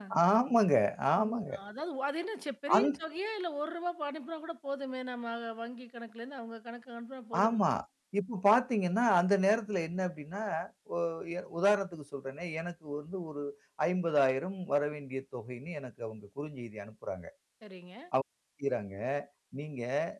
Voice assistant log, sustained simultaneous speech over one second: none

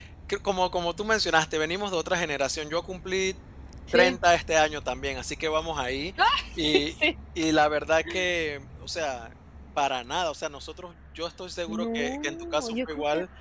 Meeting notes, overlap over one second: present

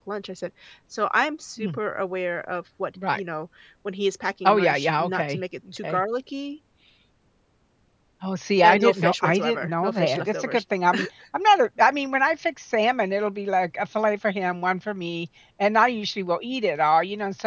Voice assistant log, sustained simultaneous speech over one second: present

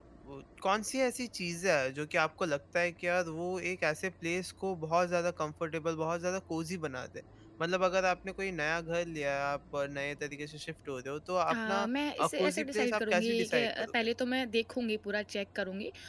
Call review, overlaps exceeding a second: present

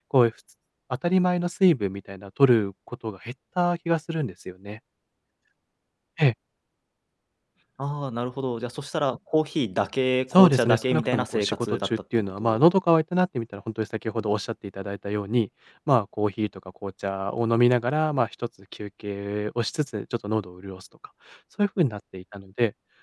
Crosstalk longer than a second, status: present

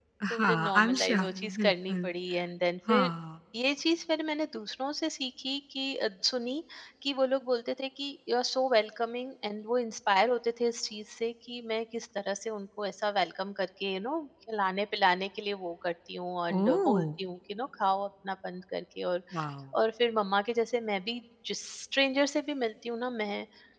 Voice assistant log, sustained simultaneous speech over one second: present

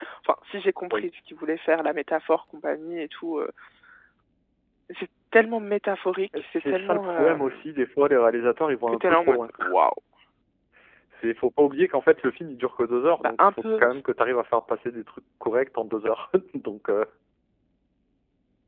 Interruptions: present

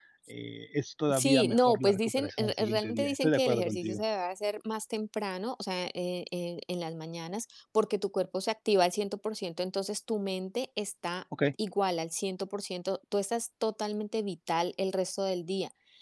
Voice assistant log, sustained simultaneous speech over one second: present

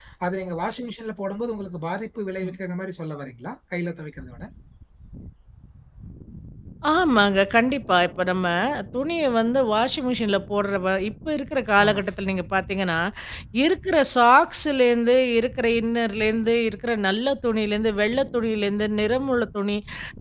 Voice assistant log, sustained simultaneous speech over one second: none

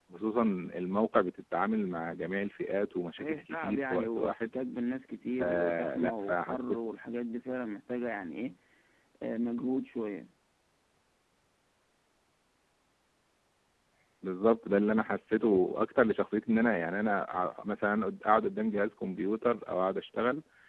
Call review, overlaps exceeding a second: present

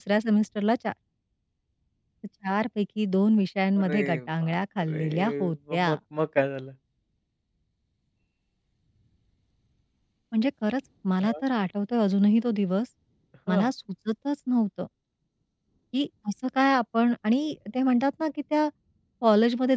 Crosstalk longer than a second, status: present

